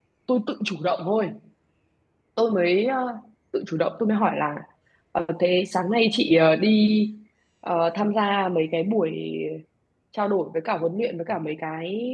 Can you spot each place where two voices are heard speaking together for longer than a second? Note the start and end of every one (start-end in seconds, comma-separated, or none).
none